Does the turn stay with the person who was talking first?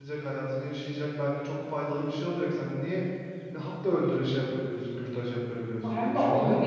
No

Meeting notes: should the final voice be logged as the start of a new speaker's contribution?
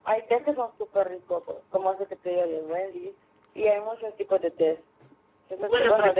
Yes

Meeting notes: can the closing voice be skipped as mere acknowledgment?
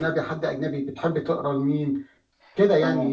No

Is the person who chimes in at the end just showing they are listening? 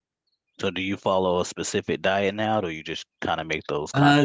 No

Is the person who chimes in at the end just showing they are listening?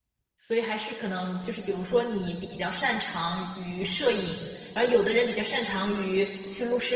Yes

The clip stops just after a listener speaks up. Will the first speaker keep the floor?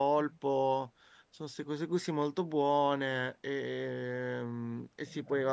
Yes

